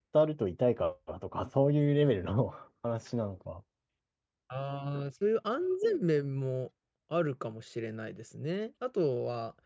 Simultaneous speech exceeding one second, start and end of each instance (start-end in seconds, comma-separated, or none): none